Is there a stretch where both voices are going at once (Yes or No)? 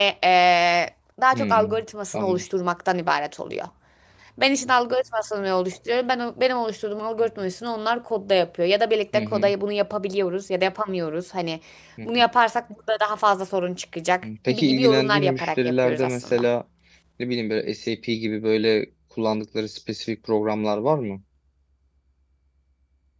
Yes